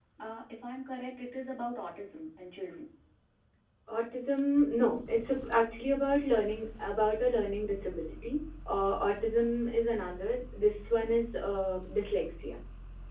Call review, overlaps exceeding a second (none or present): none